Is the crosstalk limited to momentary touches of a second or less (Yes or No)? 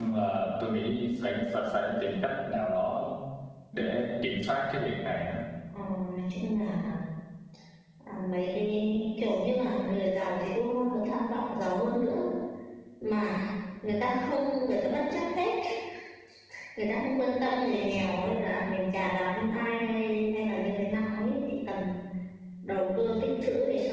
Yes